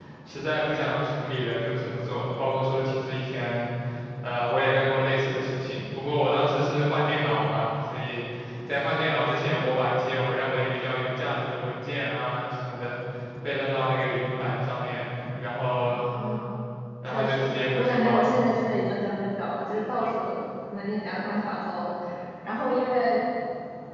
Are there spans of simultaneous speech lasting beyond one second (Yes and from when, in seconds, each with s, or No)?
Yes, from 17.1 s